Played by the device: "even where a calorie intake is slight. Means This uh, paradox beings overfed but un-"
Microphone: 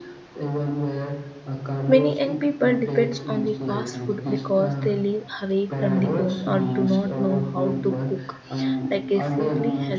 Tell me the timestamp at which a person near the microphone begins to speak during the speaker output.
1.9 s

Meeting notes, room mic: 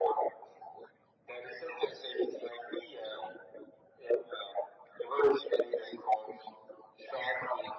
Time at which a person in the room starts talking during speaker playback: none

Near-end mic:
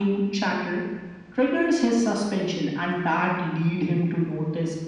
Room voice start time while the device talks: none

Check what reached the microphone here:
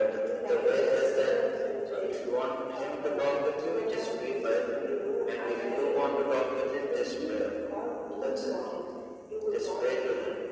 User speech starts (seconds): none

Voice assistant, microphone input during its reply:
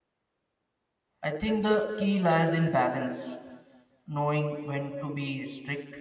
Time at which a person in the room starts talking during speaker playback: 1.2 s

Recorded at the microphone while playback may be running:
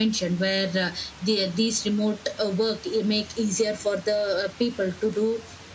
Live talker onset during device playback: none

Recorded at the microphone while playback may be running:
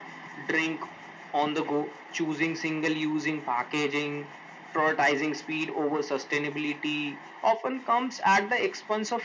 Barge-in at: none

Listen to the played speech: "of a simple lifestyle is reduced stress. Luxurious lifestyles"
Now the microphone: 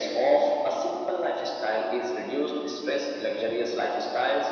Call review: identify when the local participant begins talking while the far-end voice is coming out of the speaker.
none

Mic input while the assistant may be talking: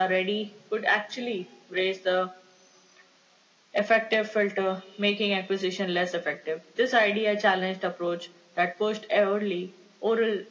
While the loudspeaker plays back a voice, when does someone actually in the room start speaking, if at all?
none

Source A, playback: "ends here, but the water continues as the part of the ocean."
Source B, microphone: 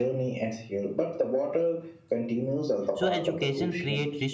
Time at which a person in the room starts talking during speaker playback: 2.9 s

